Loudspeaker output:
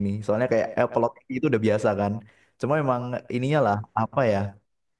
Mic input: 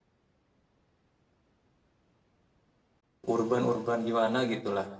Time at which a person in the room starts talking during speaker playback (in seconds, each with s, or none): 3.3 s